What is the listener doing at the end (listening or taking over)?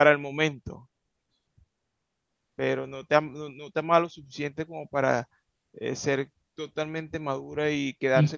listening